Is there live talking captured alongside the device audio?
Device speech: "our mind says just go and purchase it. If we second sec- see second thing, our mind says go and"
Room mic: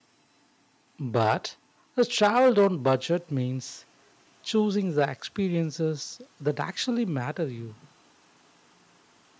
Yes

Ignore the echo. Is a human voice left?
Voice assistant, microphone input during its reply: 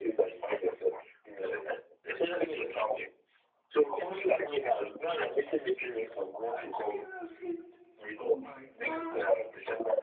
Yes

